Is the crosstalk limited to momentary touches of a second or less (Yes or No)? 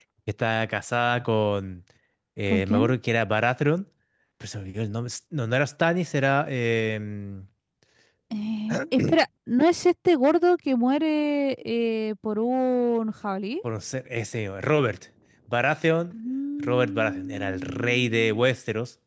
No